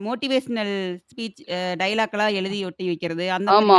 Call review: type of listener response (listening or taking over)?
taking over